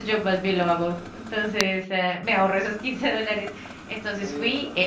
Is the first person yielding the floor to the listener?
No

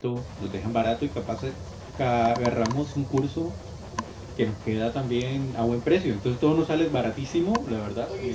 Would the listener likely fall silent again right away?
Yes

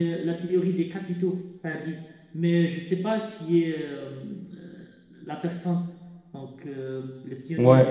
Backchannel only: No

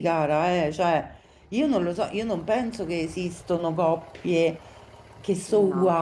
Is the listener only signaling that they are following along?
Yes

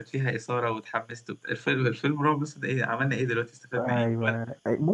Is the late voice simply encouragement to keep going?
No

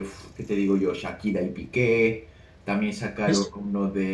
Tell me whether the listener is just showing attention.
Yes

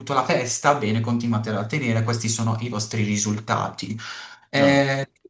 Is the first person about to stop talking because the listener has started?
No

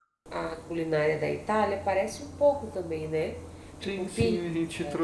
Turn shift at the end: Yes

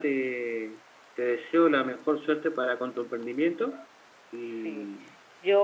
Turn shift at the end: Yes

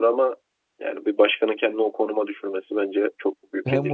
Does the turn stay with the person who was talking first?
No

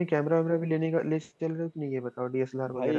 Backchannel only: No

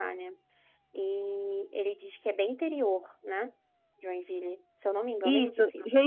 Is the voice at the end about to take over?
Yes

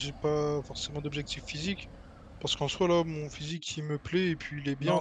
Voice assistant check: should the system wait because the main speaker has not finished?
No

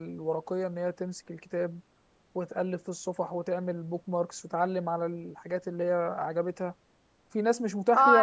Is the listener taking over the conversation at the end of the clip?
Yes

